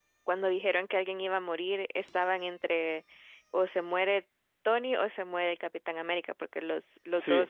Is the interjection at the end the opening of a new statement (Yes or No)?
No